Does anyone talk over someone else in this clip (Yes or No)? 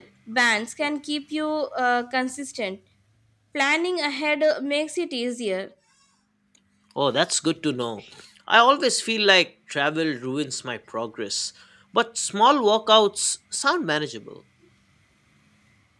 No